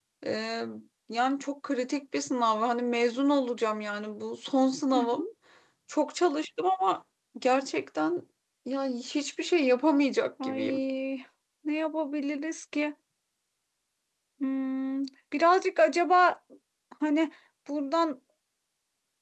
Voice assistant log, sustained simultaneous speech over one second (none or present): none